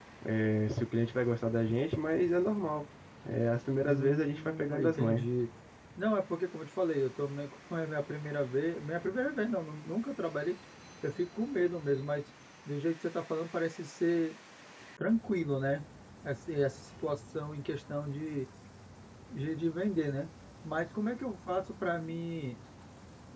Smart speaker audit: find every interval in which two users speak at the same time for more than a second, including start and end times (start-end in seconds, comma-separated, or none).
3.8-5.3